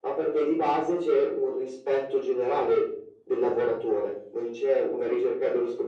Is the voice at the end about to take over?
No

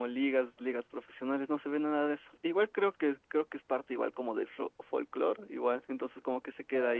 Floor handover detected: Yes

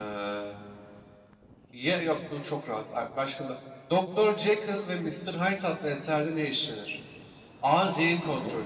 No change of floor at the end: Yes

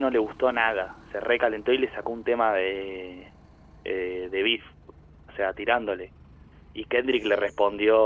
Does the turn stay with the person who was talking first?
Yes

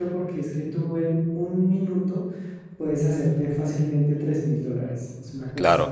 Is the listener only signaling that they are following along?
Yes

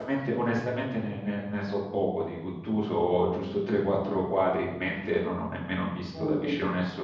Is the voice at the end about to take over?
No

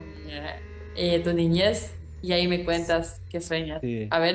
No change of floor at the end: Yes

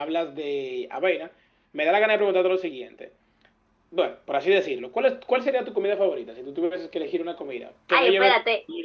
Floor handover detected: Yes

